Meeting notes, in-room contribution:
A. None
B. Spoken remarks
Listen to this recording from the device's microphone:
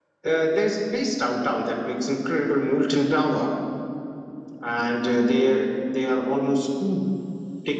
A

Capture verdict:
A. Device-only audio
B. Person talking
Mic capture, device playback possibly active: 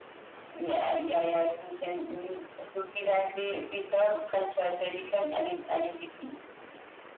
A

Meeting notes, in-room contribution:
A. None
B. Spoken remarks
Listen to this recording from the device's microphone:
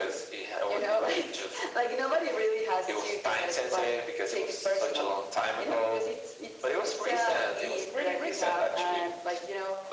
A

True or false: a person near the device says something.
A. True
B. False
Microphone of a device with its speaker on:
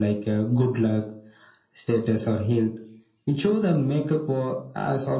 B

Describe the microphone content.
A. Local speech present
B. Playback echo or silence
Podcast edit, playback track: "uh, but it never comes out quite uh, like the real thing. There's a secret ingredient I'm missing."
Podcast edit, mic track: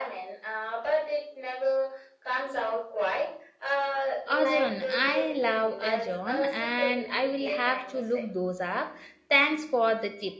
A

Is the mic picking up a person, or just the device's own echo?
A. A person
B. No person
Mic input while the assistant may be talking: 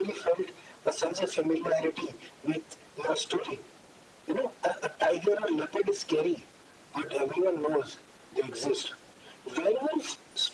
B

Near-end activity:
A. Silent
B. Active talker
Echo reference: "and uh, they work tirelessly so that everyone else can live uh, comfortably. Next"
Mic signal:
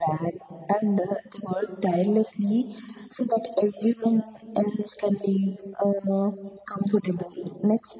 A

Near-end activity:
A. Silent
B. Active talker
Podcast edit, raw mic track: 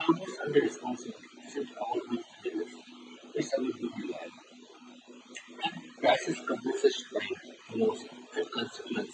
A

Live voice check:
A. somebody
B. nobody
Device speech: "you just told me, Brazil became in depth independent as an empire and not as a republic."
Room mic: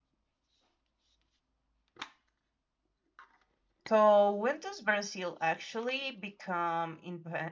A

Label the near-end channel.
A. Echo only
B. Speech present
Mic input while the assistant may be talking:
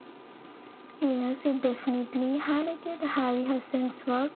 A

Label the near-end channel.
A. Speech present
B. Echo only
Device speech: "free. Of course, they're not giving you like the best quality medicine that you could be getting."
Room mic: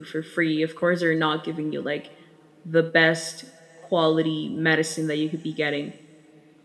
B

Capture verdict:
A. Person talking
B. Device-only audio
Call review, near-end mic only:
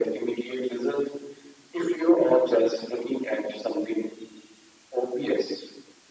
B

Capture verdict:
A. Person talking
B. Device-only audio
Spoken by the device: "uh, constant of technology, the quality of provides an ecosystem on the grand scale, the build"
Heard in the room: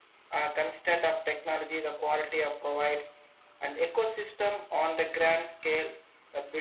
B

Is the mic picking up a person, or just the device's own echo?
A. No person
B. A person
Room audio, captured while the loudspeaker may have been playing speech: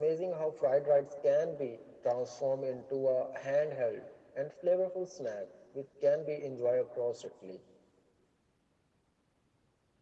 A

